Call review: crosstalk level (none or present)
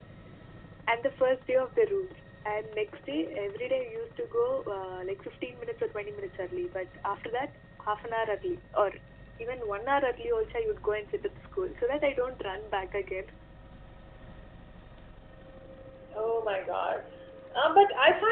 none